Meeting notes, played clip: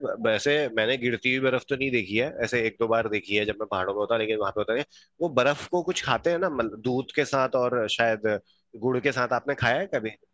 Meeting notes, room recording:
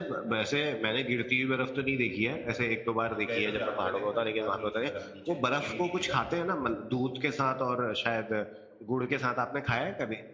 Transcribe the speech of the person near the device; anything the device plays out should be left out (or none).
हम गए थे जाड़ों में थे पर वहां नहीं थी बर्फ नीचे गिरी नहीं थी तब